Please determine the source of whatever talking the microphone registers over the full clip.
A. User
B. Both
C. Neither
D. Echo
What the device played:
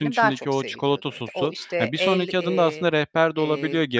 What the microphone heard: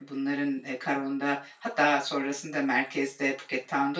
A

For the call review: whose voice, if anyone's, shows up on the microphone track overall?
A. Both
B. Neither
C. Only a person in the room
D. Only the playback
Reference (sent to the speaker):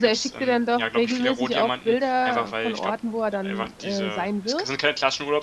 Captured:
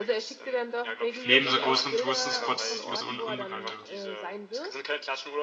A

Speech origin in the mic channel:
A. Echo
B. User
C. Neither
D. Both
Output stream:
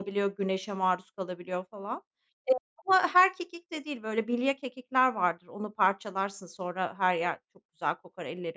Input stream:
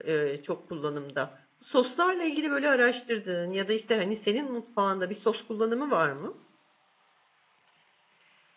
B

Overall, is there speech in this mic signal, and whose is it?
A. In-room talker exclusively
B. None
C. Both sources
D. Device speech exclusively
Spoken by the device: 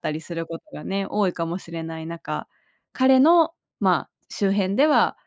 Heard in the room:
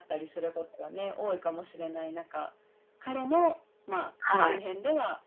C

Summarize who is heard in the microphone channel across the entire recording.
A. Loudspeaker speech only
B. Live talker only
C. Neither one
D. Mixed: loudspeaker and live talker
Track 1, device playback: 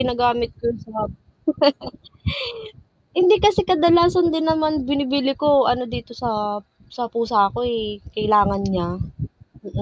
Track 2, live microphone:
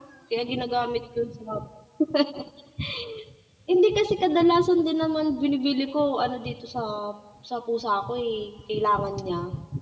A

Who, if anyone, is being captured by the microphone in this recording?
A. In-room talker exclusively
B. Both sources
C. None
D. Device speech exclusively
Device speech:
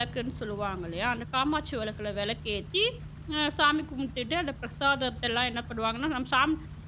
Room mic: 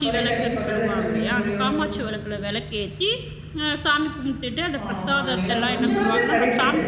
B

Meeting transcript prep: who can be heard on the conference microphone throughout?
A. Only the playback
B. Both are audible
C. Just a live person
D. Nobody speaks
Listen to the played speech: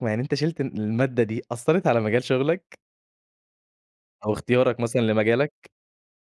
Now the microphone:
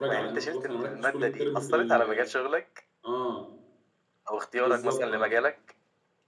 B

